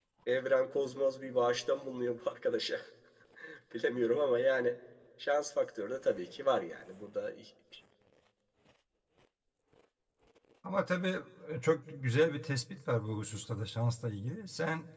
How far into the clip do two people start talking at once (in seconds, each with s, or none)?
none